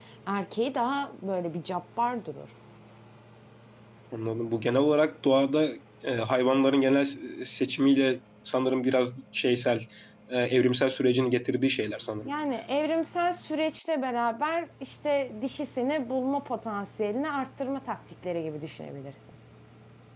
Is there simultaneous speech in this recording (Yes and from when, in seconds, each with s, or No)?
No